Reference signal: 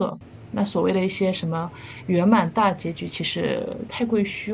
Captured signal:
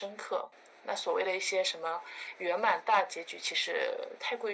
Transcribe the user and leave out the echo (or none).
none